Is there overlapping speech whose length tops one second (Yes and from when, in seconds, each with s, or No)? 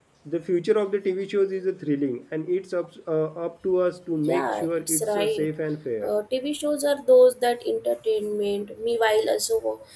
Yes, from 4.3 s